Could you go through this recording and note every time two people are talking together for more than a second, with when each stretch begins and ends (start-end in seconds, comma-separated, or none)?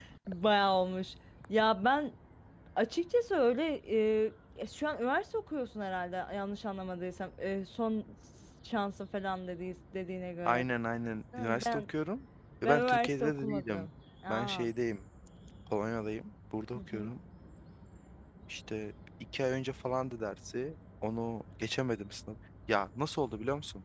12.6-13.9